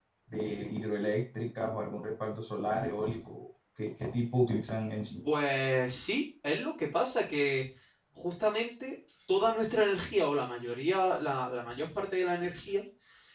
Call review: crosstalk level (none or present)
none